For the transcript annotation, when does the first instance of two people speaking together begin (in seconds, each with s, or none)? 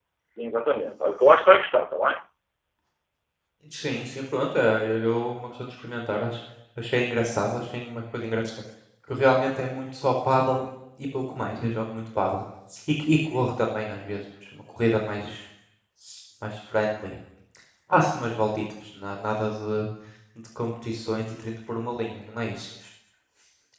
none